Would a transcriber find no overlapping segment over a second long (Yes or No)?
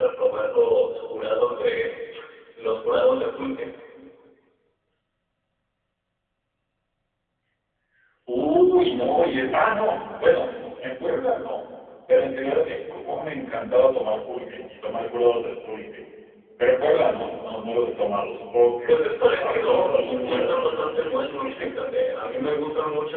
No